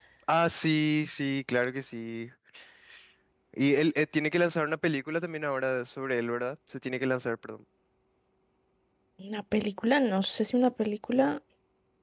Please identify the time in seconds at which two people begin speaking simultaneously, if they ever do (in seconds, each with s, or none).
none